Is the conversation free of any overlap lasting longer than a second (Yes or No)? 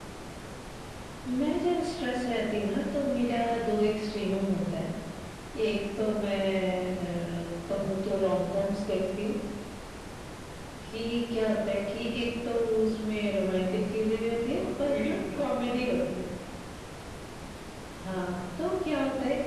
No